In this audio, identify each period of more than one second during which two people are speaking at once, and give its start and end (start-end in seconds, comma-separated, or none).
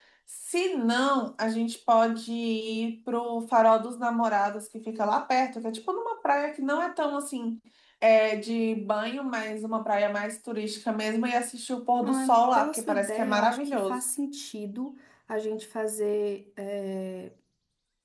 12.0-14.0